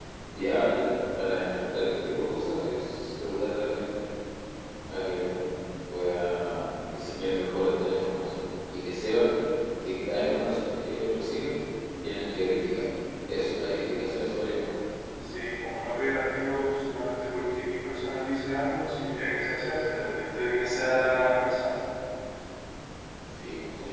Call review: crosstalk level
none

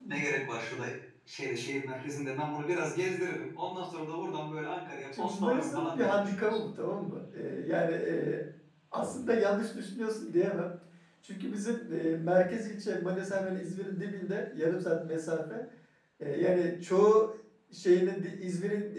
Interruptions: present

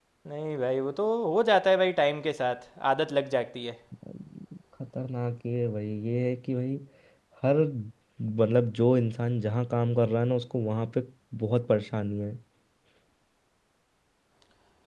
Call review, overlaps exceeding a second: none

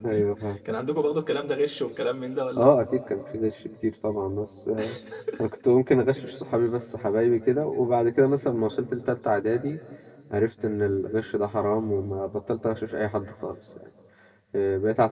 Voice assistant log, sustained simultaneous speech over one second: none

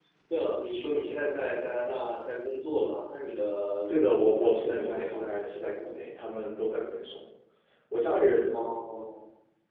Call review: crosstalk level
present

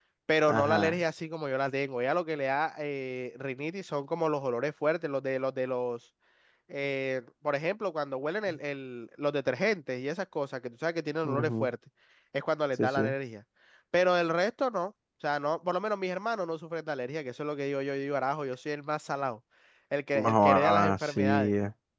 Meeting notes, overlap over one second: present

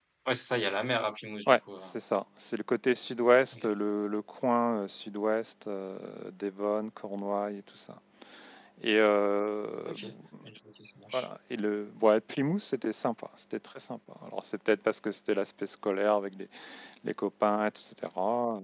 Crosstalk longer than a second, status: none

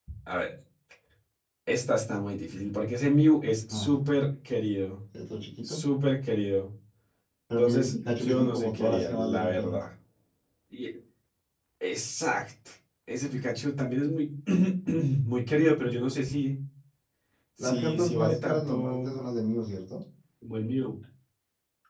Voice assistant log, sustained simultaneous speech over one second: present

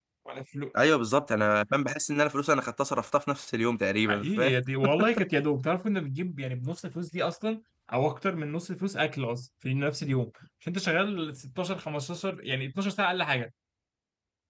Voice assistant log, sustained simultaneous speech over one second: none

